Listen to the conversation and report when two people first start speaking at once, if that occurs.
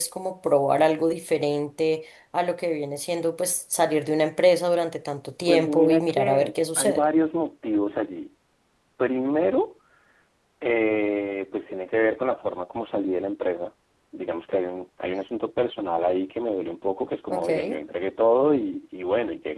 5.5 s

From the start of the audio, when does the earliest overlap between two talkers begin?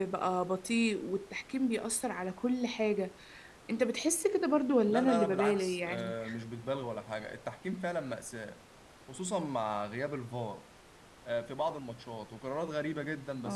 4.9 s

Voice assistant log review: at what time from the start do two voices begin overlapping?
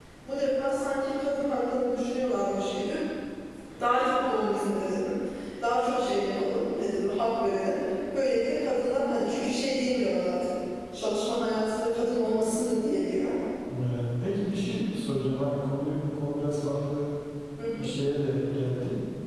none

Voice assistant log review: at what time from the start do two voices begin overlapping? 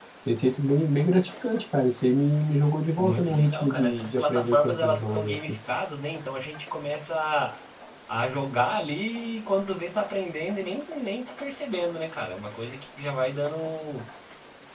3.0 s

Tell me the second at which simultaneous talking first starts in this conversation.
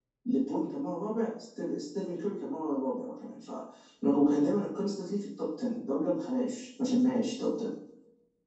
none

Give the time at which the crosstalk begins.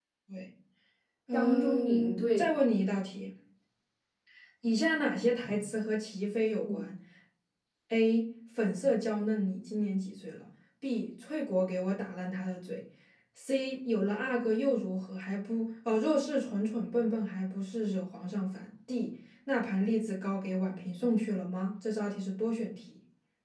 1.3 s

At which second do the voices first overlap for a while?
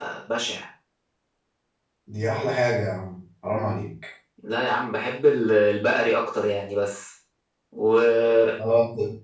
none

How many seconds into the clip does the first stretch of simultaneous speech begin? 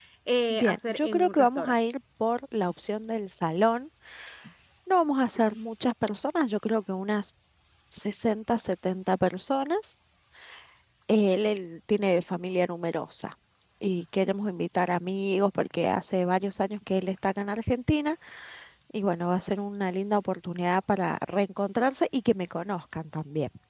0.5 s

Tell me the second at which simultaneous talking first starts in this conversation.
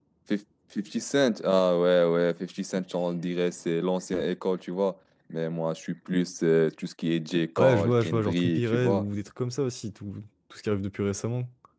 7.6 s

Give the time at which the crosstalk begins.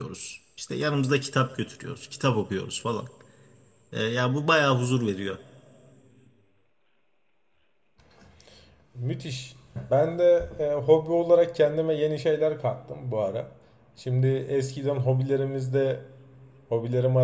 none

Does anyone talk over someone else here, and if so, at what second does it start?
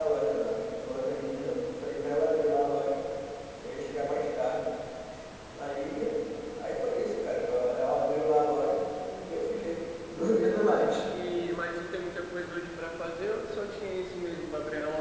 none

